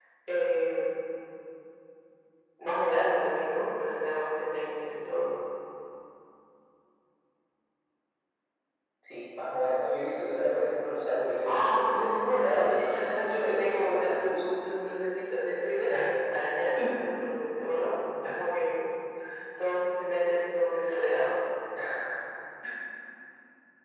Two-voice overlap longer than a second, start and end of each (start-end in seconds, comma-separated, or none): 11.4-14.4